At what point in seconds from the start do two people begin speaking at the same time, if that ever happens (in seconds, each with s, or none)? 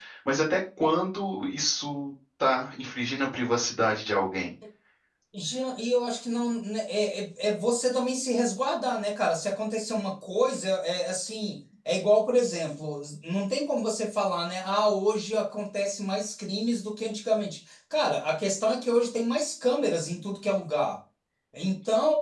none